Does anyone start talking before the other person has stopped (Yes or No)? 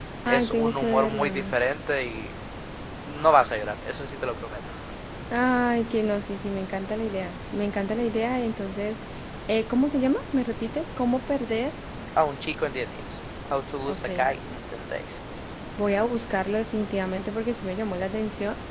Yes